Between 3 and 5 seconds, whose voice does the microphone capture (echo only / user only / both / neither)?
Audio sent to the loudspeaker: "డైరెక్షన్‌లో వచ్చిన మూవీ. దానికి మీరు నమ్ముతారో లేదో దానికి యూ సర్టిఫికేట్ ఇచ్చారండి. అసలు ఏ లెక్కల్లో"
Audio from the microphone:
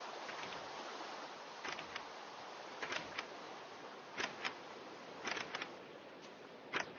neither